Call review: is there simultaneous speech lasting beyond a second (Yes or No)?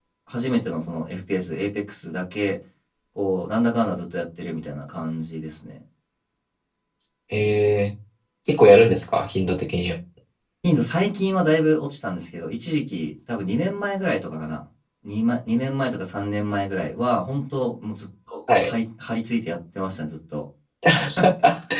No